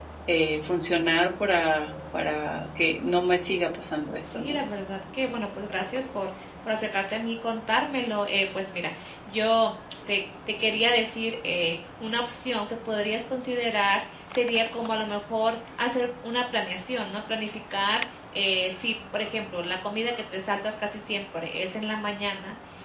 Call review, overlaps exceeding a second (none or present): none